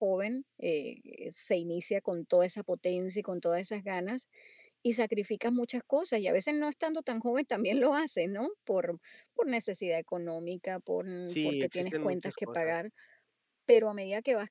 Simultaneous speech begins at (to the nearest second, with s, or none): 11 s